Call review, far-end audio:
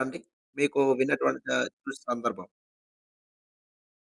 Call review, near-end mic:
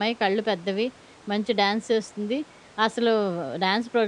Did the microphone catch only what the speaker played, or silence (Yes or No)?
No